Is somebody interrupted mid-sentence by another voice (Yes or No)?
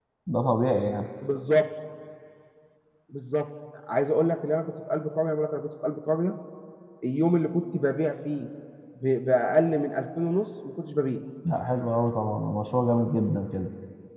No